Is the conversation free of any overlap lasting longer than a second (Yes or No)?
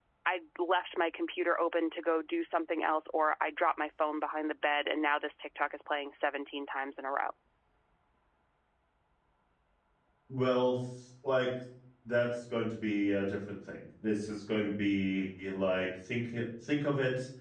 Yes